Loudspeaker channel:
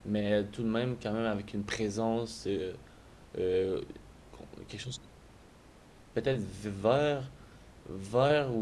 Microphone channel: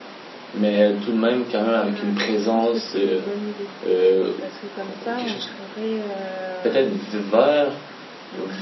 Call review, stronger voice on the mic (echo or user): echo